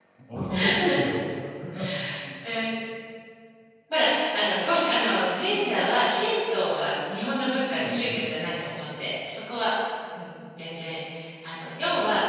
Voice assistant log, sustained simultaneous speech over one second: none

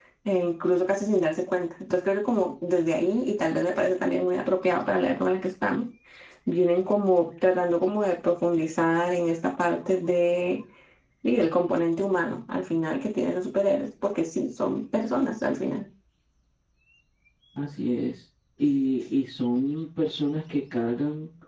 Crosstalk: none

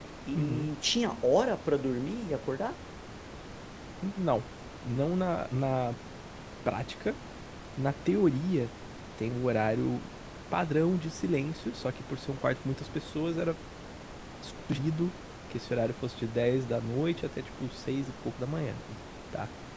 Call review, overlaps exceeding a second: none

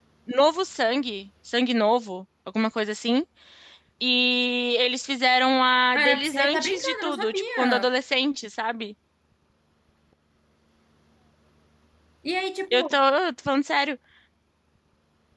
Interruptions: present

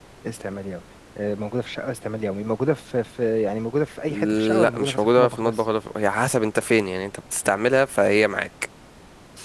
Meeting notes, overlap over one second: present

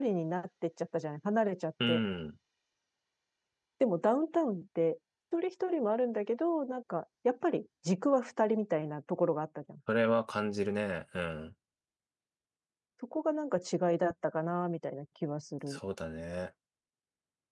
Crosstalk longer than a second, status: none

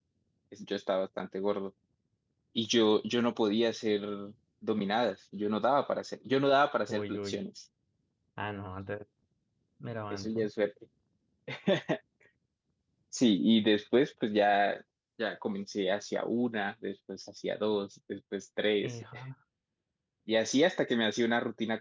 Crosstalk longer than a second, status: none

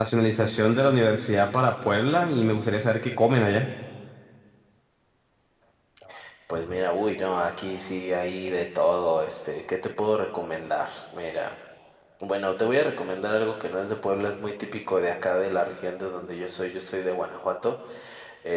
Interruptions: none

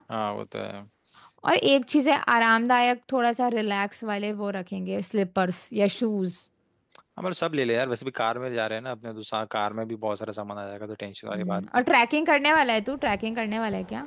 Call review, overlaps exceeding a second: none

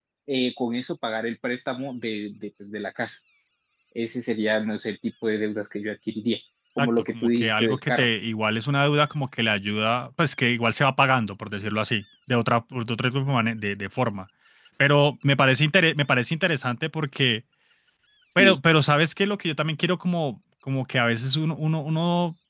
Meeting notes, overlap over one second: present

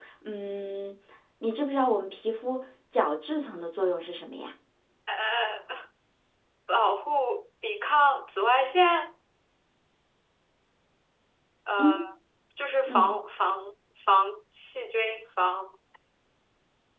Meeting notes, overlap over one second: none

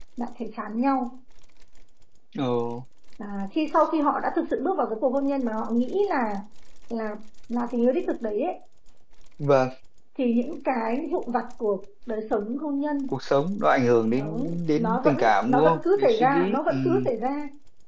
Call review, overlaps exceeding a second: present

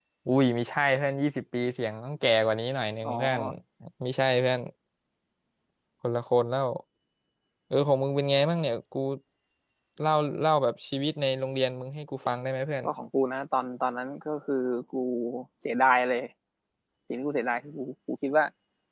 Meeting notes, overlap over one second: none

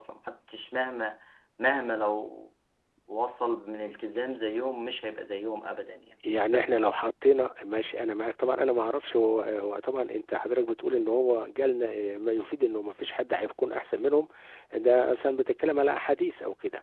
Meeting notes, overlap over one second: none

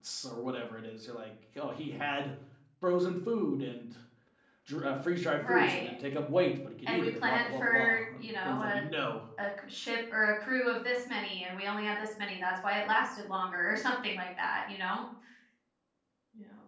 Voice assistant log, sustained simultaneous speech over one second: present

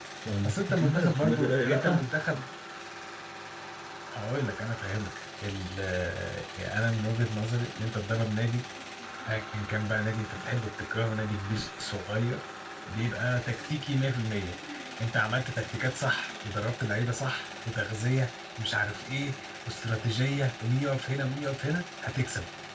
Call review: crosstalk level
present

